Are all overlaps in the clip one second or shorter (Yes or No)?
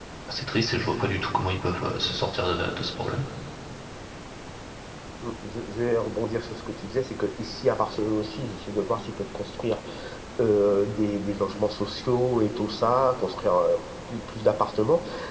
Yes